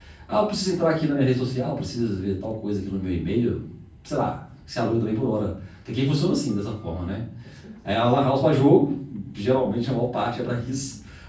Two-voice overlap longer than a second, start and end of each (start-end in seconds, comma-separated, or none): none